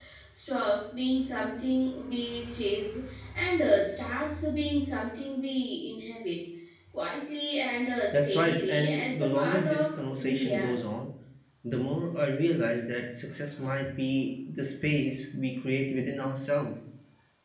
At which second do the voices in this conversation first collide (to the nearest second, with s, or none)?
8 s